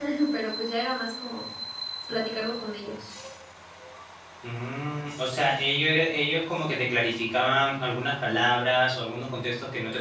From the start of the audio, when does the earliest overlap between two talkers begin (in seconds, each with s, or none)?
none